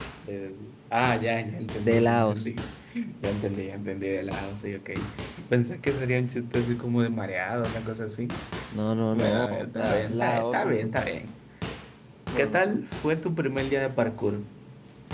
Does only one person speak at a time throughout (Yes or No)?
No